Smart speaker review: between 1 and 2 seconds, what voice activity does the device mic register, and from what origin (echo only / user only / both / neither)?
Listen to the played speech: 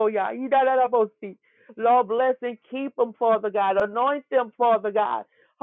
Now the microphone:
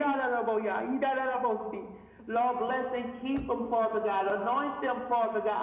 echo only